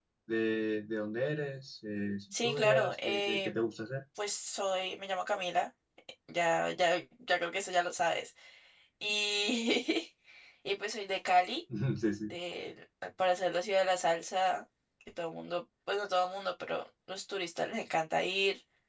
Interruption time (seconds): 2.3 s

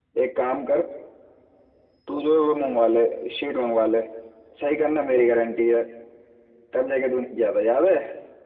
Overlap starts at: none

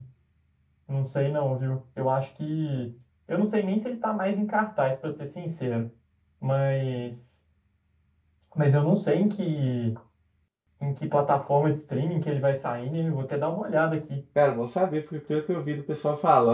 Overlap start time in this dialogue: none

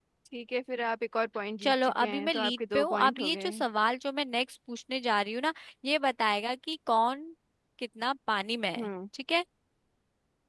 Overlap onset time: 1.6 s

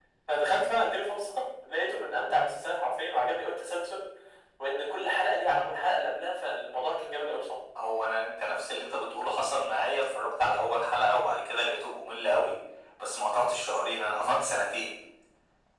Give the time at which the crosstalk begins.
none

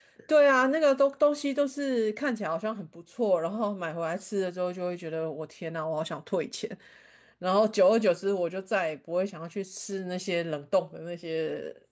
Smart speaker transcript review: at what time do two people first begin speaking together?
none

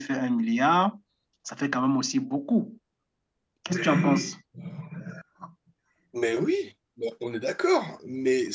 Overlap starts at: none

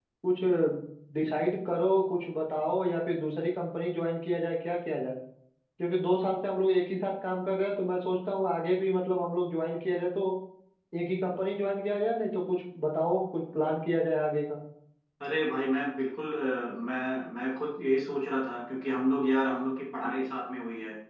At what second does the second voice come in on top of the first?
none

